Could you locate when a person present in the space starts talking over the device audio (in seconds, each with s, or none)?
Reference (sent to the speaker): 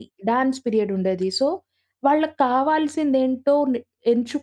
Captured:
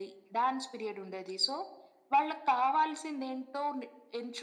none